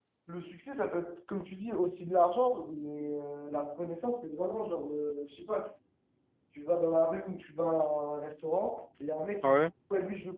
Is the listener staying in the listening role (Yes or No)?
Yes